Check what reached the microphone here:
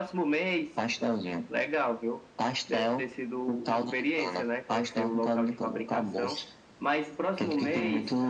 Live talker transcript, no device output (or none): none